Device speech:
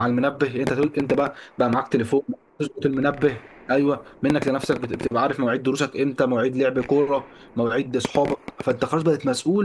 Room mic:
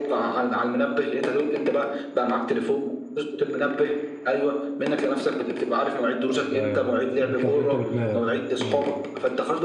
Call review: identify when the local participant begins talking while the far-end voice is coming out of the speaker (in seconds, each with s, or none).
6.3 s